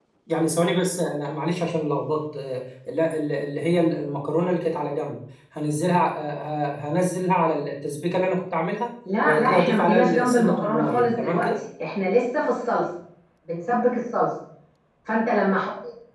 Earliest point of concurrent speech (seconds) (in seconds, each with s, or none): 9.1 s